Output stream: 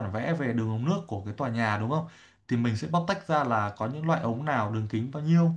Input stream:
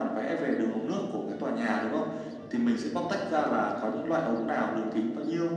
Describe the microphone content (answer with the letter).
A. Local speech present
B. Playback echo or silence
B